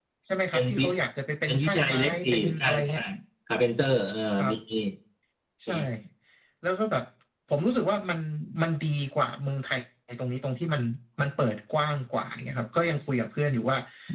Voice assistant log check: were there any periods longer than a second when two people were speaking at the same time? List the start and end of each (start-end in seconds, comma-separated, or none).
1.5-3.0